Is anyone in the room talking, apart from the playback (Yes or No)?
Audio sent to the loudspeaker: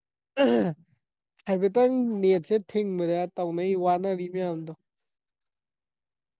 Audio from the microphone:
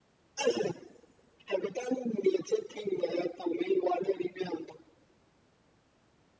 No